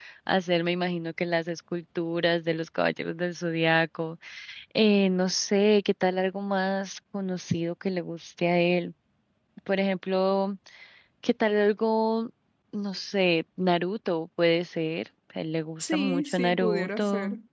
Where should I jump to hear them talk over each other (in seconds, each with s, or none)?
15.8 s